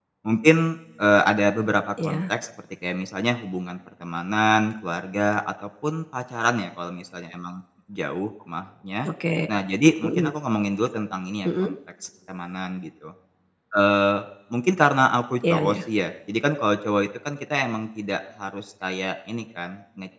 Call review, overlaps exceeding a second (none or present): none